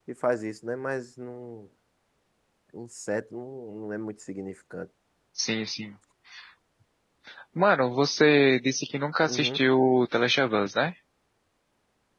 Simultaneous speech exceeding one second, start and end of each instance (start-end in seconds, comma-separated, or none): none